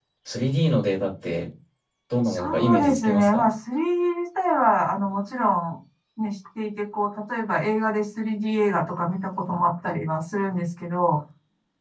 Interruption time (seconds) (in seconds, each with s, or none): 2.2 s